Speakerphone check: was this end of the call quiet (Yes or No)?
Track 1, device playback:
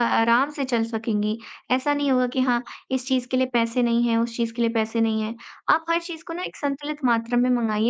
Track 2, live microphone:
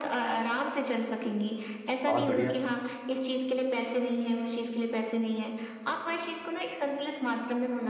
No